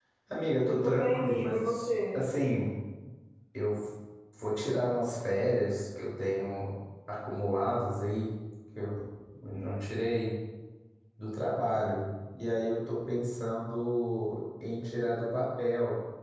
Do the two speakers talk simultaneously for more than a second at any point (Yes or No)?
Yes